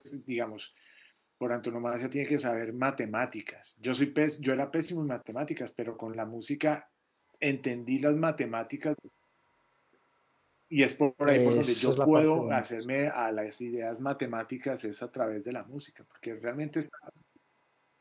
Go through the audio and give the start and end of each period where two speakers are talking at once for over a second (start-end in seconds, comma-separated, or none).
11.3-12.6